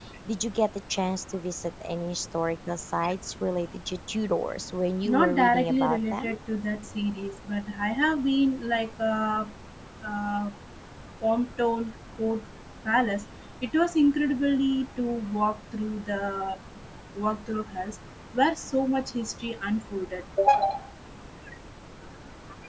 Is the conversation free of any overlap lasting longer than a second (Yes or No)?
No